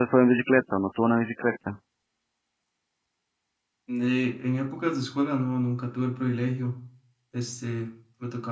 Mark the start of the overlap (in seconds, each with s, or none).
none